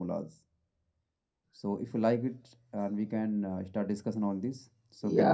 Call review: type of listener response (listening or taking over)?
taking over